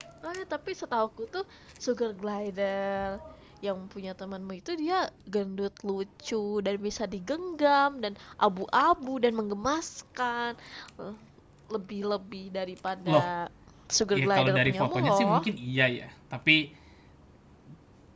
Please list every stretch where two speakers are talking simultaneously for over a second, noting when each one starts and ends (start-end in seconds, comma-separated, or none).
14.1-15.4